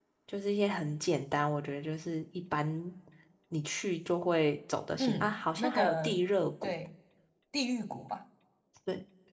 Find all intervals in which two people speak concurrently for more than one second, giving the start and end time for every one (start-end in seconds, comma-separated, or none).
5.0-6.2